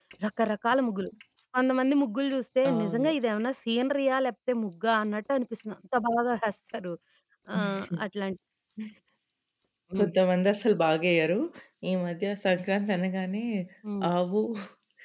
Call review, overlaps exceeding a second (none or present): none